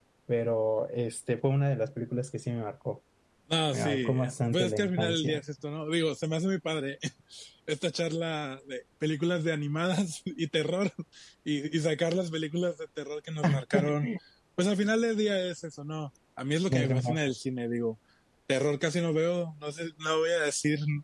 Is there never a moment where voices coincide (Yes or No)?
No